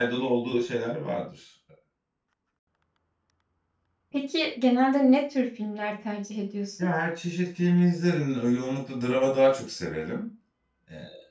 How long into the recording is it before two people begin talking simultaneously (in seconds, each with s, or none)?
none